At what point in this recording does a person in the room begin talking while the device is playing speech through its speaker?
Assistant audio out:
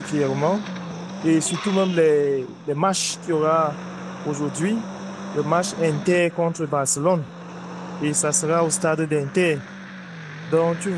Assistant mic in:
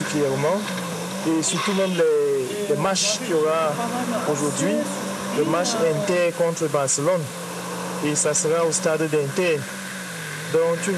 2.4 s

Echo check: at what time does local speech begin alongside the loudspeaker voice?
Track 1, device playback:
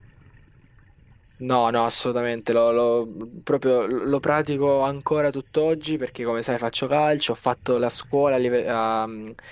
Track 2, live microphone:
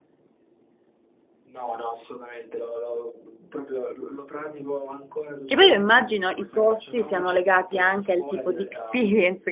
5.4 s

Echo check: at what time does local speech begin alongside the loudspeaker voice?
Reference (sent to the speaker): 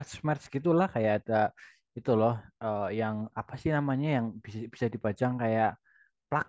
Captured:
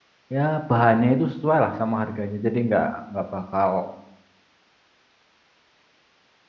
0.3 s

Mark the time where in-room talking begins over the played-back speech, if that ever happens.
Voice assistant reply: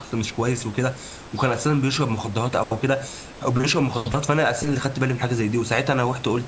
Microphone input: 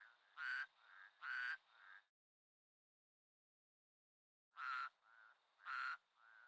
none

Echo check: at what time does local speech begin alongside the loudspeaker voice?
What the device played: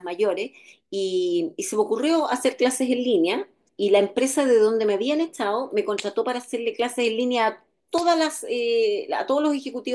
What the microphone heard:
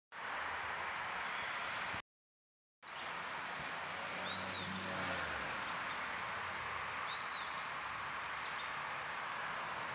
none

